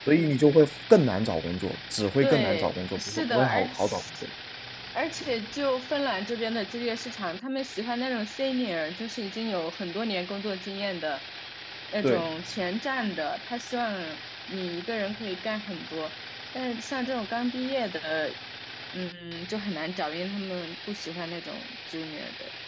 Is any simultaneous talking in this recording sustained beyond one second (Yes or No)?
Yes